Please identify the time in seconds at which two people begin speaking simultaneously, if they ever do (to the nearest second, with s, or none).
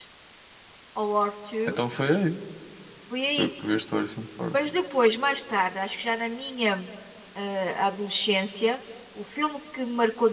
none